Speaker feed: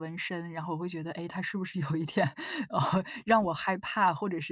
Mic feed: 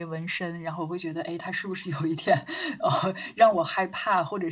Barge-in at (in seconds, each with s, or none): none